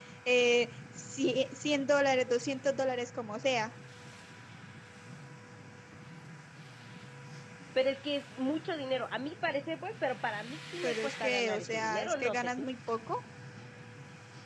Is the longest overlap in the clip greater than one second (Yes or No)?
Yes